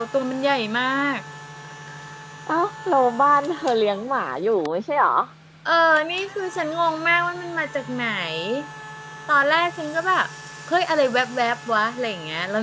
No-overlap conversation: Yes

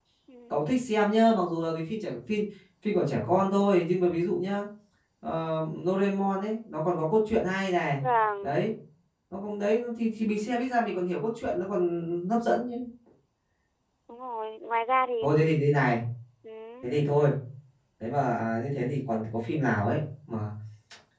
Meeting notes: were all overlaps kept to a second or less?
Yes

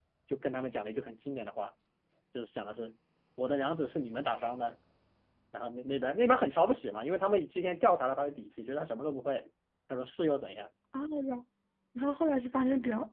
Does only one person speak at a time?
Yes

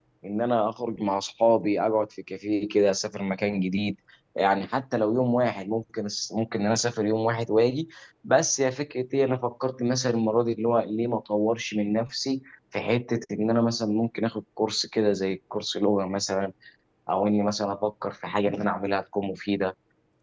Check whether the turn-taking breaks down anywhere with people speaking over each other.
No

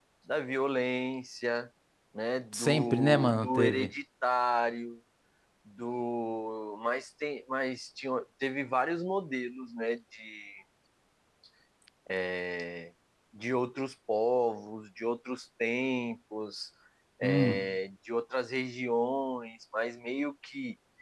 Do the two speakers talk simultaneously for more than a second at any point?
Yes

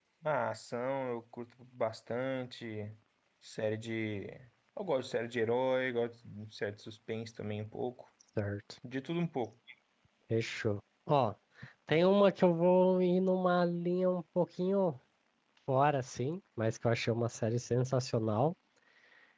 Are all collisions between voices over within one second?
Yes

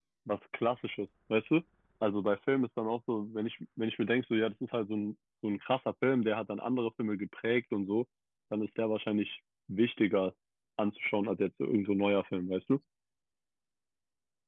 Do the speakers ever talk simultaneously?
No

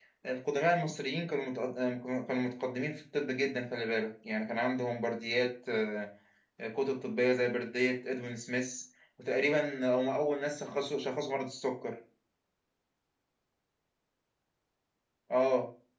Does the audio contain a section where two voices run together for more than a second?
No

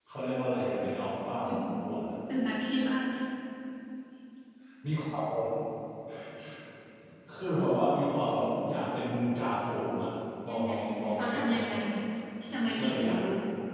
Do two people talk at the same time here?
Yes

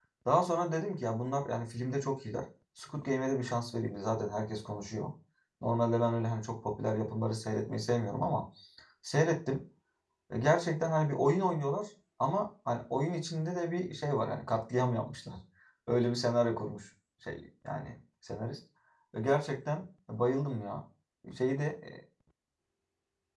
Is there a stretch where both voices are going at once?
No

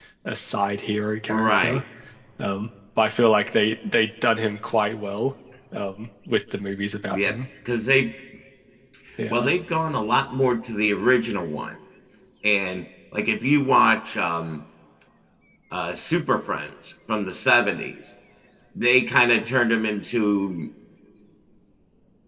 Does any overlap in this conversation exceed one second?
No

